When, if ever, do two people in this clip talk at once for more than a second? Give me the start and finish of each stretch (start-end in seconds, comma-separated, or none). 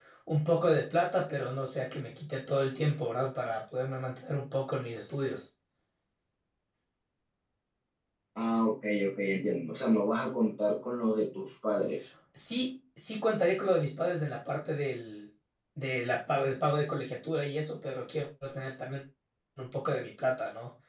none